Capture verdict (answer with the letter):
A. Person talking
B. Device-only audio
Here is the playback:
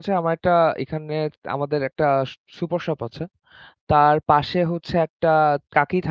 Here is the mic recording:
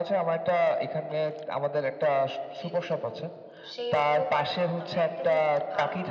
A